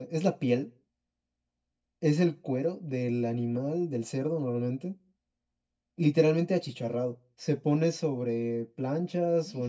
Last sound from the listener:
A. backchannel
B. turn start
A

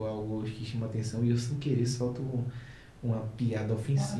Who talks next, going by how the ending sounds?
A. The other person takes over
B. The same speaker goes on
B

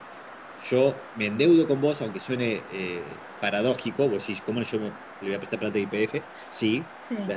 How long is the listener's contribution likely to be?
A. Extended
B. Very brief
B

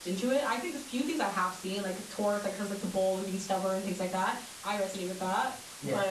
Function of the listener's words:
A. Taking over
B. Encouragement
B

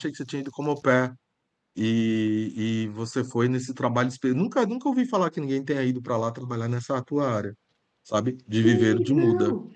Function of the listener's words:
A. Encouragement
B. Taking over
B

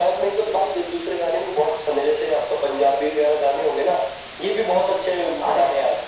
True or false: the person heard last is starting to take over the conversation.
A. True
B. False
A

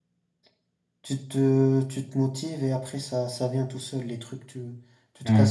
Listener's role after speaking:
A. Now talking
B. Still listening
B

